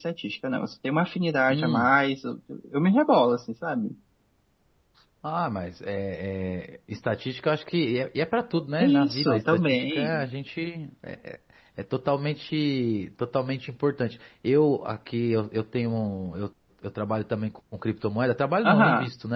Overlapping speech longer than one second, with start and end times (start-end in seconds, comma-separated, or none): 8.8-10.2